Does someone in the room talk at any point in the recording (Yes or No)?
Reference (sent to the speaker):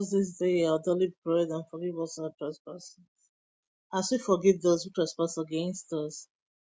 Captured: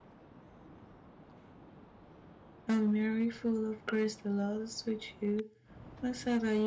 Yes